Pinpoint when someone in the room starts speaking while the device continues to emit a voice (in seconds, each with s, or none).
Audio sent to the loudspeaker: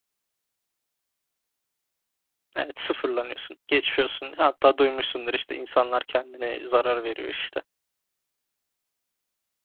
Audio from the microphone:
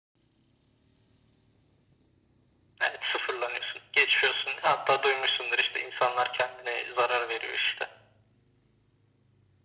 none